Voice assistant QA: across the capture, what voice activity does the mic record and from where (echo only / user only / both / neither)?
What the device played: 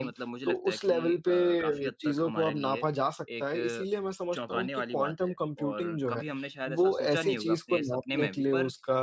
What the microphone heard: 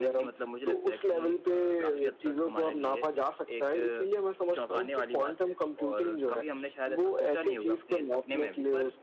echo only